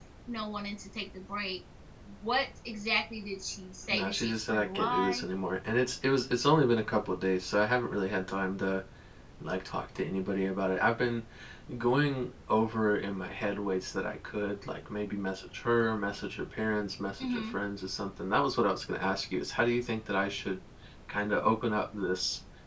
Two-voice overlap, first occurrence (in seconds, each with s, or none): 3.9 s